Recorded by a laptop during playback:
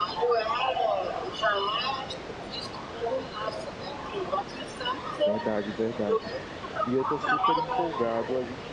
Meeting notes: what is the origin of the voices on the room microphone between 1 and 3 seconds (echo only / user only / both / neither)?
echo only